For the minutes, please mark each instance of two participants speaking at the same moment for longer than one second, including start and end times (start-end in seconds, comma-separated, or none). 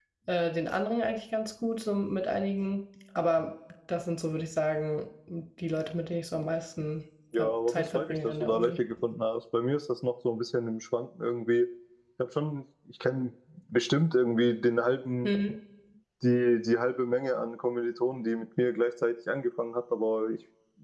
7.4-8.8